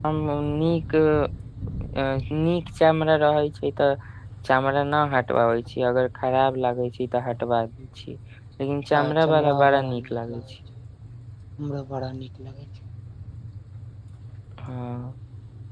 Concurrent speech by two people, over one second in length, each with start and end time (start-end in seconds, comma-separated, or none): 8.9-10.4